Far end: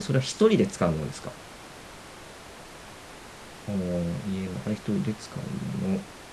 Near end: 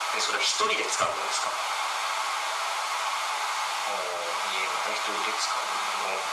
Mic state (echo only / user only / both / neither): echo only